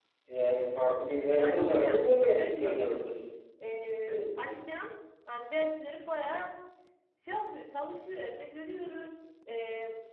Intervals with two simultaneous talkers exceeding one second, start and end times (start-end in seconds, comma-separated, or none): 1.3-2.8